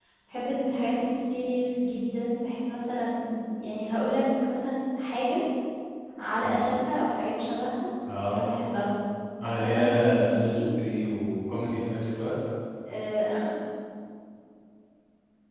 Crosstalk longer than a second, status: present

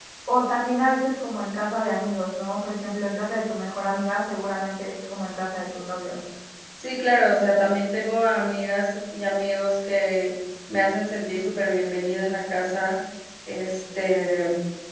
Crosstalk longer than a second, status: none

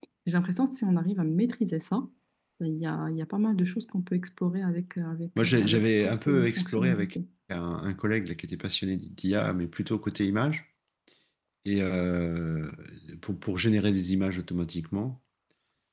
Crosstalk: present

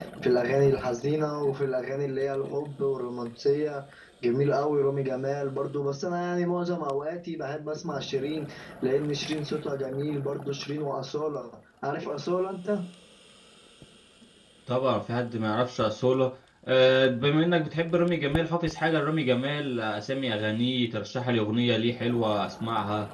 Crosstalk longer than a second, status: none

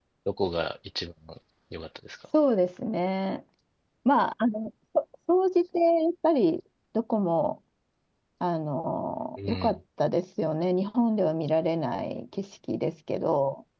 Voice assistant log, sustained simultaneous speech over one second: none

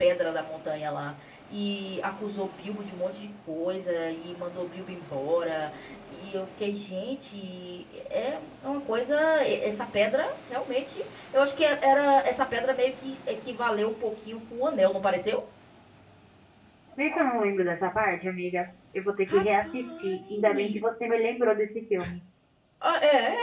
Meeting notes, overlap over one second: present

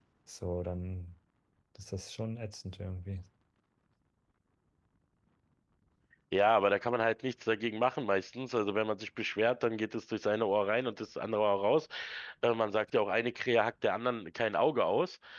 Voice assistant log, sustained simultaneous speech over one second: none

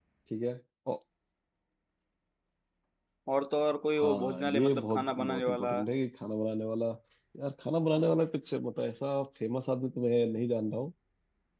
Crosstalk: present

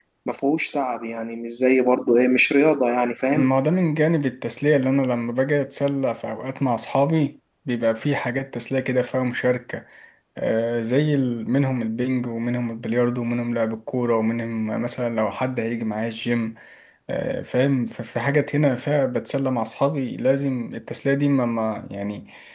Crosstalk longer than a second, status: none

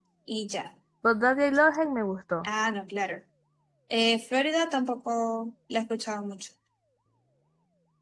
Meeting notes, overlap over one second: none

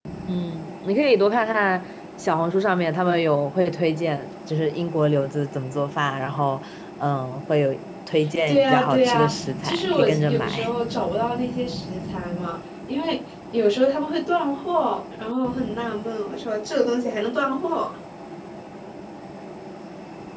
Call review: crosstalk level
present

